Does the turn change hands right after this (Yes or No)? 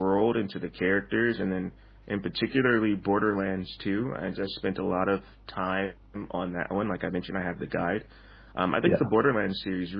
No